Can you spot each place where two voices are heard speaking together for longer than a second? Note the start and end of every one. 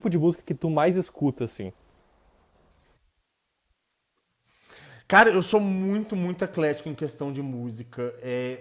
none

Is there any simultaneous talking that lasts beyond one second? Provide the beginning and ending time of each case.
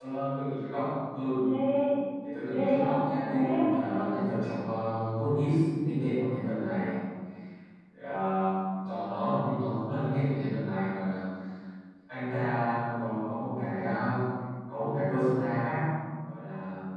2.4-4.2

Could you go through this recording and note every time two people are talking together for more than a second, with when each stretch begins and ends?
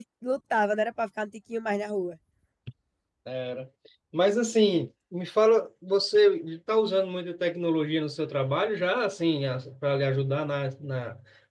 none

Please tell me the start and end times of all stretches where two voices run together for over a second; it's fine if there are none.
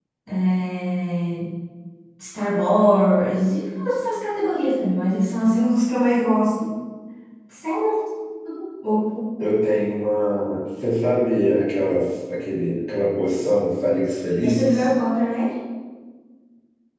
none

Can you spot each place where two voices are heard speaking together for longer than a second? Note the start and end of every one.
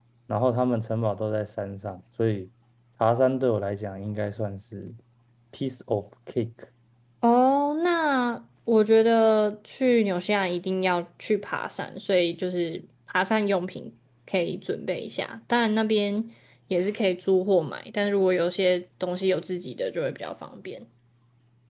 none

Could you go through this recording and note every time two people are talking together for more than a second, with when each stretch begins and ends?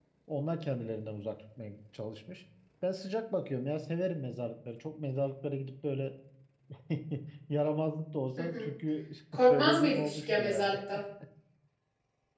9.3-10.8

